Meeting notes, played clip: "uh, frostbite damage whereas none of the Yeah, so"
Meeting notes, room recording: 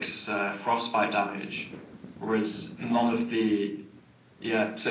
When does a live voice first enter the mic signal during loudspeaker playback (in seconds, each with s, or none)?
none